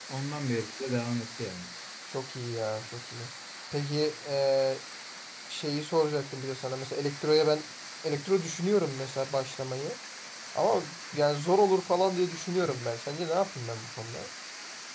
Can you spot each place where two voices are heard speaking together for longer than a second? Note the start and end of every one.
none

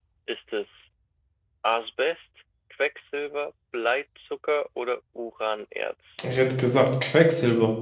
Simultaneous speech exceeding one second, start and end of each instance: none

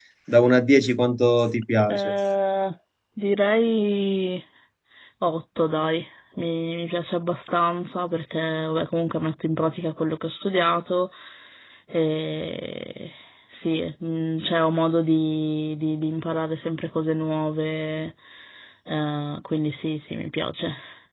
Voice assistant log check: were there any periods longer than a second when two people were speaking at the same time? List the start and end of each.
none

